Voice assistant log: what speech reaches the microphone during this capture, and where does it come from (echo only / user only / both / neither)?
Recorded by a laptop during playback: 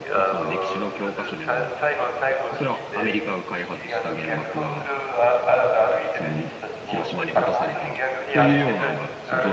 both